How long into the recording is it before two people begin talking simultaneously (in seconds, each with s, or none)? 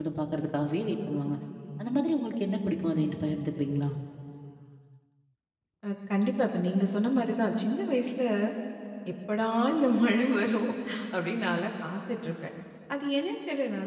none